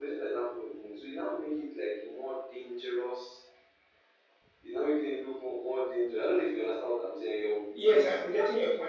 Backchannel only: No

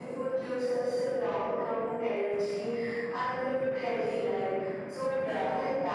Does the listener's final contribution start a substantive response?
No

